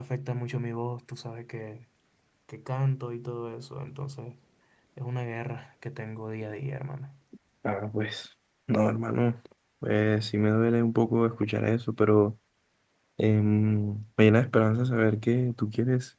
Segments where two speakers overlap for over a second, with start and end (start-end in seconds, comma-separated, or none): none